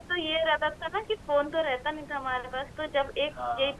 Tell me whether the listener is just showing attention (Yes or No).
Yes